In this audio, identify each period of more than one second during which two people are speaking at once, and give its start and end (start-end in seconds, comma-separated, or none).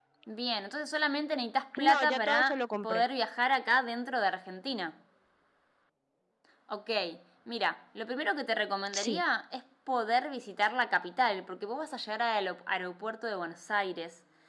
1.8-3.0